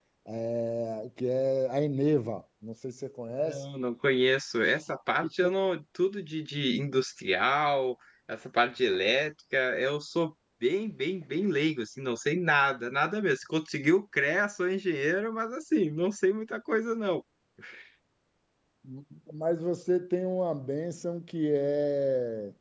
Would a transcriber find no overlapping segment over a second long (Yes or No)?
Yes